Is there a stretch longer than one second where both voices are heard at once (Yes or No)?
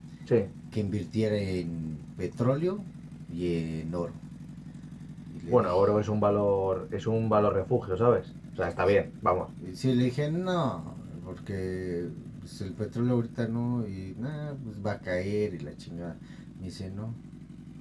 No